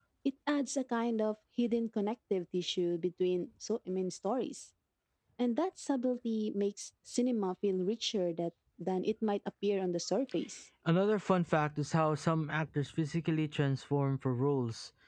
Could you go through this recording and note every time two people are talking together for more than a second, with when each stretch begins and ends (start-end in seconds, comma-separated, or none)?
none